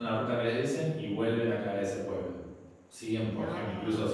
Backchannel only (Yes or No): Yes